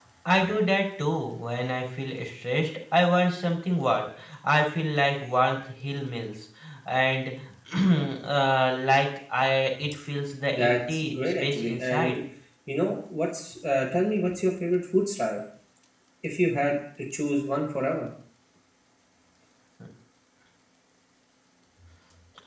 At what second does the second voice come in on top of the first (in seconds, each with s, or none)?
10.5 s